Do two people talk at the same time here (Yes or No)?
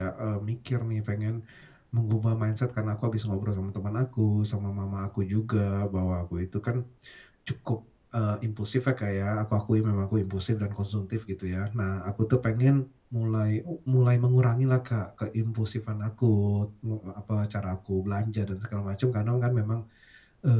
No